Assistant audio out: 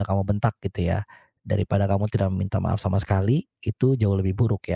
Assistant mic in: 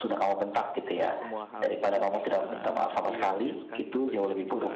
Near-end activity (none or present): present